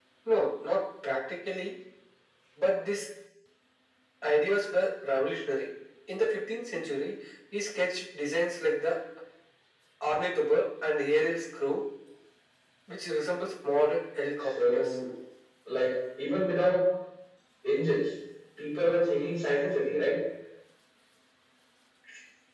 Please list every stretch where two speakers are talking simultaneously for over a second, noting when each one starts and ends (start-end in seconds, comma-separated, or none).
none